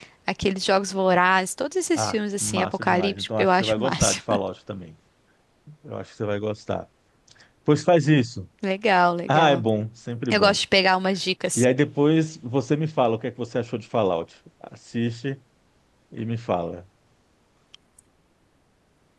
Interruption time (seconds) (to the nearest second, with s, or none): 2 s